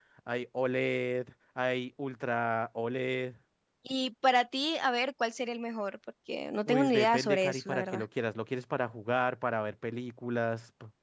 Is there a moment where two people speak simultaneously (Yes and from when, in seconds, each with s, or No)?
Yes, from 6.7 s